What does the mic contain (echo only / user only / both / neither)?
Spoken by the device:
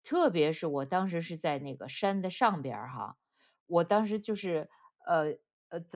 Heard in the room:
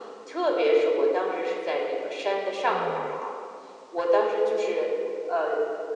both